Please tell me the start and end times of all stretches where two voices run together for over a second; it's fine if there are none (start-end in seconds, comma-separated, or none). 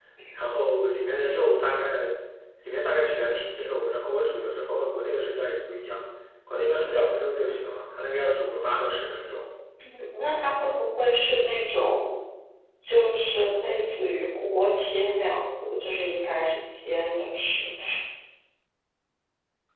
none